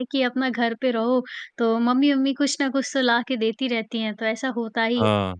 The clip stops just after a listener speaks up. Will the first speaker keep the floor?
Yes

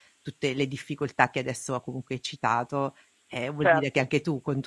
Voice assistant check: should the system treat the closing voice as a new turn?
No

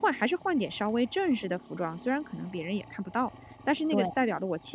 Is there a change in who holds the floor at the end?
No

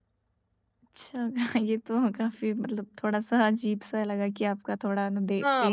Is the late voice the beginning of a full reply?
Yes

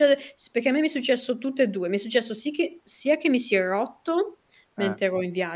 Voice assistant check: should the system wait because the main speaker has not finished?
Yes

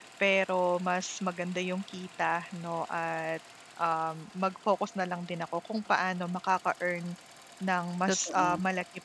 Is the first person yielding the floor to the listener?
No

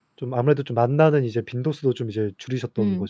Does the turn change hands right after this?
Yes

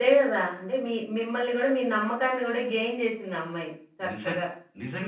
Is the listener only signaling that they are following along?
No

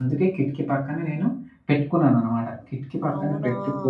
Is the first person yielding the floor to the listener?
No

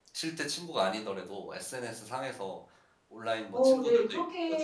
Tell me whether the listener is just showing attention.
No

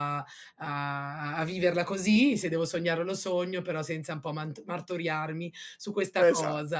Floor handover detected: No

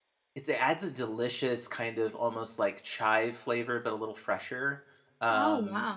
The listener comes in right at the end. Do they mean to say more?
No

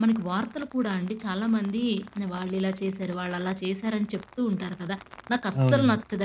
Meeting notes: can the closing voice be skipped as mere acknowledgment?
Yes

